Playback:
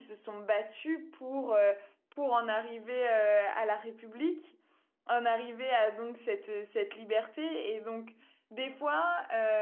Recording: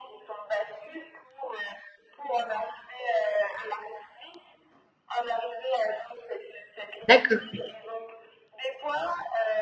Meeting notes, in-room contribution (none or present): present